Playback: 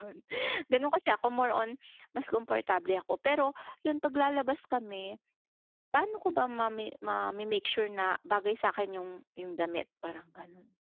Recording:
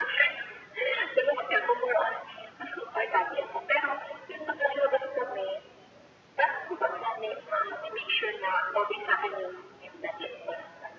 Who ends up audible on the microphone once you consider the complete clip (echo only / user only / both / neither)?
echo only